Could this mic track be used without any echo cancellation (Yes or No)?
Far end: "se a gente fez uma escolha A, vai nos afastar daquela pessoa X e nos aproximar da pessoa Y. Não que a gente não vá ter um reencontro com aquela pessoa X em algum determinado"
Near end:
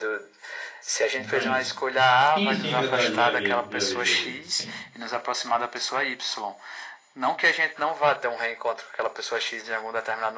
No